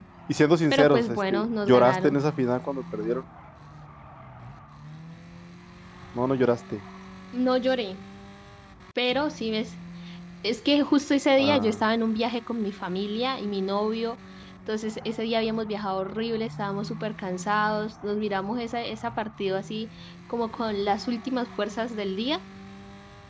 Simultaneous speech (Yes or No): Yes